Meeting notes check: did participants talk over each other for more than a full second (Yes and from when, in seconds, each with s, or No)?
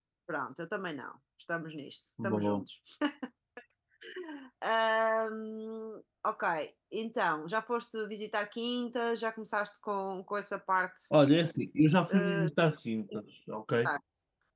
No